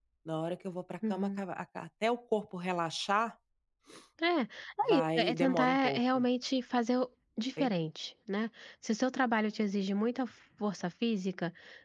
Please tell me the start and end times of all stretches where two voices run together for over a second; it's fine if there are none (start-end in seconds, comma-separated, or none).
4.9-6.3